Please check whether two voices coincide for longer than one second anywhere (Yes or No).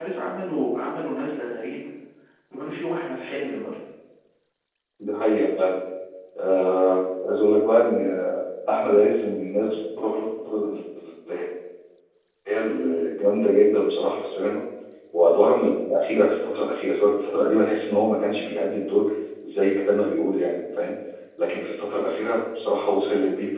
No